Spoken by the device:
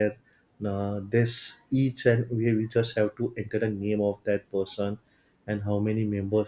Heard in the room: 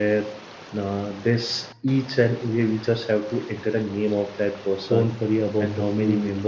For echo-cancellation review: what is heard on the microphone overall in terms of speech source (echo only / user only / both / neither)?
both